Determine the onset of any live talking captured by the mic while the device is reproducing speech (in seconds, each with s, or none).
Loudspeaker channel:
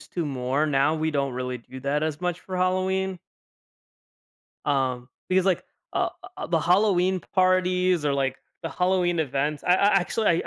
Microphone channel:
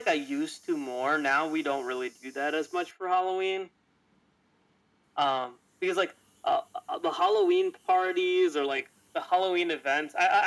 none